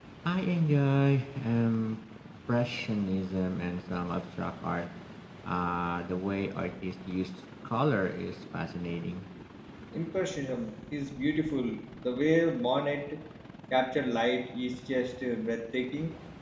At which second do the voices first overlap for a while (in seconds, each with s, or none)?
none